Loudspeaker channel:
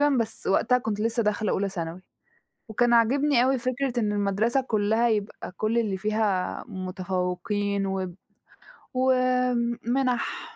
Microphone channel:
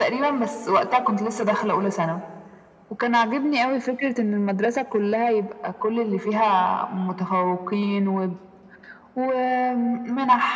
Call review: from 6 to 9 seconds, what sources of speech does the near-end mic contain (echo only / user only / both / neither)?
echo only